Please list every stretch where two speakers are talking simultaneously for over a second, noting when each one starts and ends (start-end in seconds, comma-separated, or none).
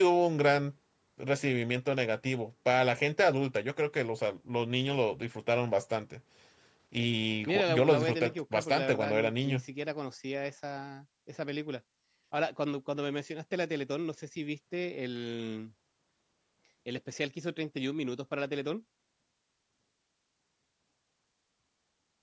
7.5-9.6